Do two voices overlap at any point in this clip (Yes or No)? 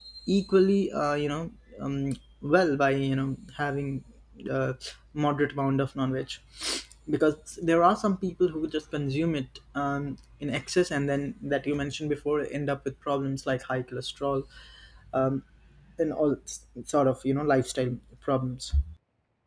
No